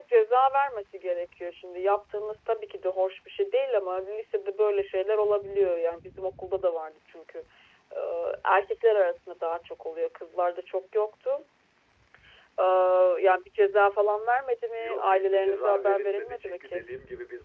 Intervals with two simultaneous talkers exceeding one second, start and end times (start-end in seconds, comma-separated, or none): 14.8-16.8